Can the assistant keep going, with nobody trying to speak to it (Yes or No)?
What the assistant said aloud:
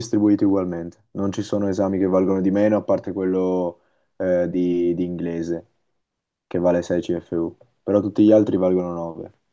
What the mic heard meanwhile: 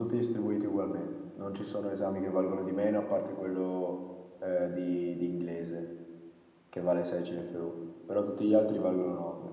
Yes